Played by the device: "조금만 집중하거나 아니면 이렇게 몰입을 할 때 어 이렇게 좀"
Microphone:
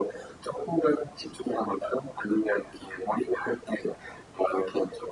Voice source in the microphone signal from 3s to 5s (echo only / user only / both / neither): echo only